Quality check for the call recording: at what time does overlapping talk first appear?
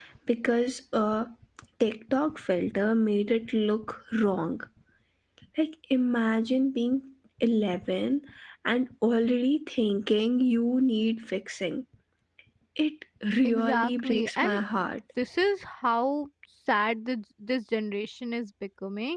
13.4 s

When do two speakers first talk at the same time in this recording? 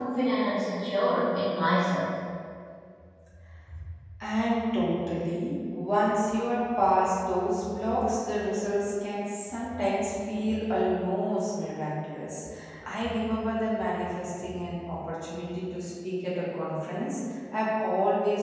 none

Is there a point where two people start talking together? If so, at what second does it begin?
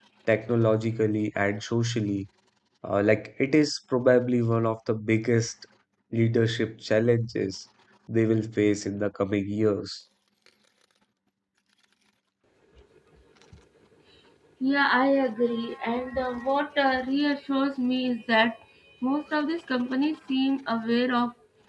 none

